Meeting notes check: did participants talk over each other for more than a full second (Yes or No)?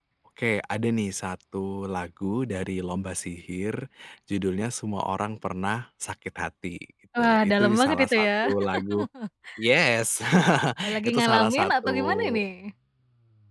Yes